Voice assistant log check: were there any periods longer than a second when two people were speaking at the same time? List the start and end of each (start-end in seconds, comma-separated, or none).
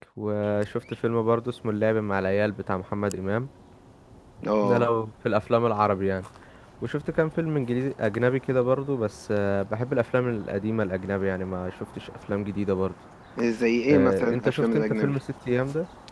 13.9-15.2